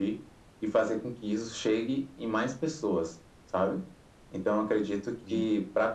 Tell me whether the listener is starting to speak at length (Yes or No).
No